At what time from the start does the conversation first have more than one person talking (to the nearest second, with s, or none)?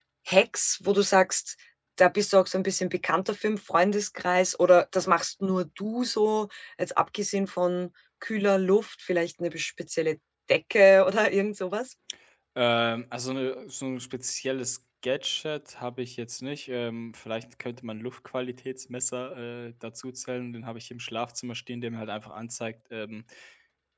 none